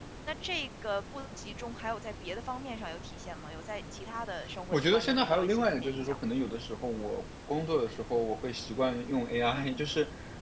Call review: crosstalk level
present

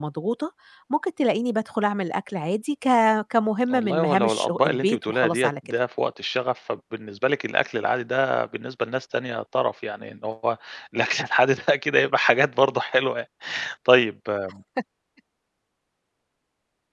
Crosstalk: present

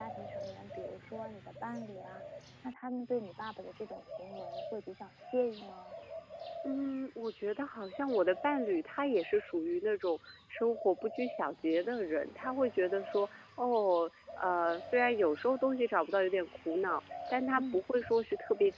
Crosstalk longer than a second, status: none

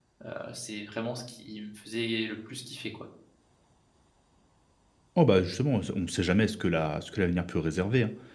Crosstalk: none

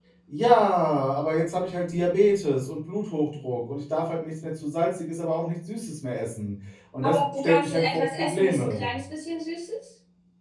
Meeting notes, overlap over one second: present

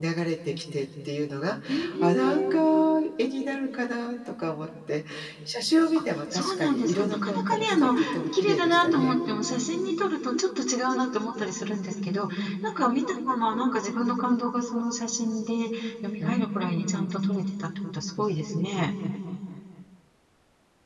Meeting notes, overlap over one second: present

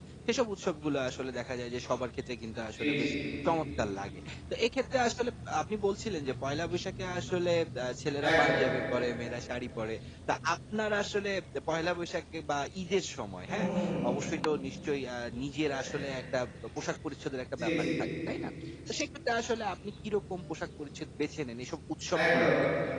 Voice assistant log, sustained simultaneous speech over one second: none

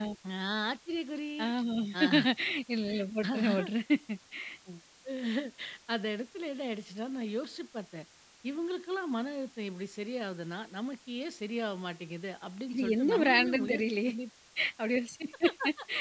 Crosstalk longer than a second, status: present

